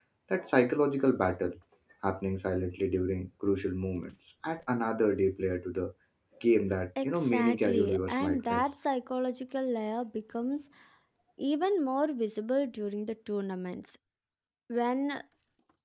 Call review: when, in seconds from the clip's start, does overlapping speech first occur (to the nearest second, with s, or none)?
7 s